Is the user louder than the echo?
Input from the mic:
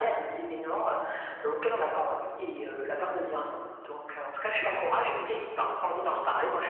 No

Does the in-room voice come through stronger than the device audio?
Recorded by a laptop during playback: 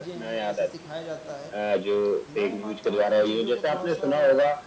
No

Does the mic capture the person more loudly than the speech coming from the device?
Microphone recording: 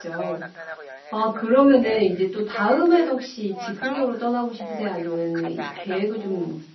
Yes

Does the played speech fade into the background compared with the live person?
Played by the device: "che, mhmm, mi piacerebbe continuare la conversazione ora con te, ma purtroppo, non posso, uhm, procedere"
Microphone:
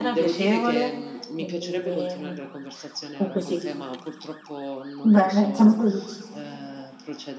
Yes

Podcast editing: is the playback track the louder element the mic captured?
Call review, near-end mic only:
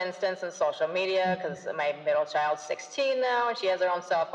Yes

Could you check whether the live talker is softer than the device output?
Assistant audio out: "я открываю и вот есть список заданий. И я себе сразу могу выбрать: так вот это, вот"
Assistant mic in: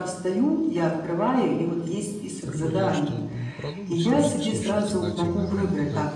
Yes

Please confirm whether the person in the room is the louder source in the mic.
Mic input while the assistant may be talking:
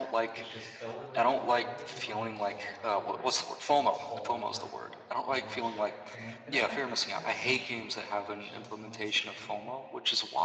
No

